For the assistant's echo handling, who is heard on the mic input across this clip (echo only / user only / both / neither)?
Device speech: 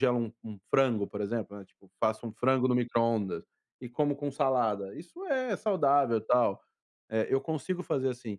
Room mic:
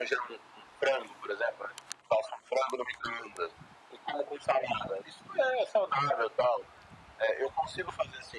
echo only